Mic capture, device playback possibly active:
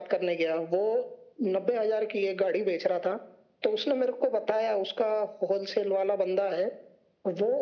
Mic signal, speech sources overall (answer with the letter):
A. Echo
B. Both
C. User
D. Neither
A